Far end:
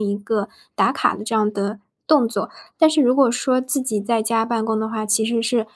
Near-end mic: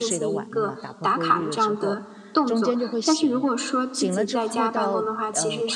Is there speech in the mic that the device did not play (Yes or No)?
Yes